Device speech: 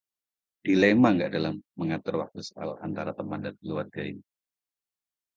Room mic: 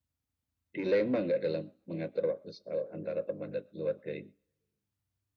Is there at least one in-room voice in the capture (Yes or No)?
No